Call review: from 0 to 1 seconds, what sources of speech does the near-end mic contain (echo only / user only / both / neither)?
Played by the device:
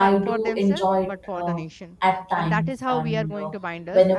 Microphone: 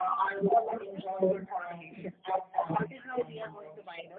echo only